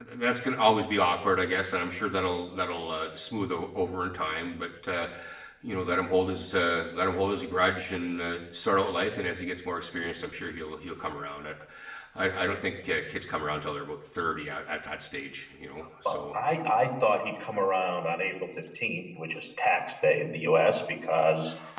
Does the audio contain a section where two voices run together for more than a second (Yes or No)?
No